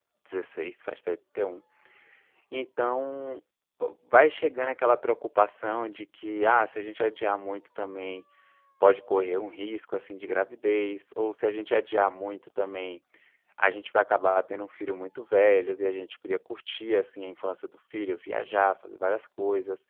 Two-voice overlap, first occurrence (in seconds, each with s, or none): none